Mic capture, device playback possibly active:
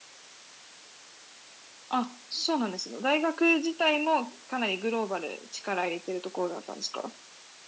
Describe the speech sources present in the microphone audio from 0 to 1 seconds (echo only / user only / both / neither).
neither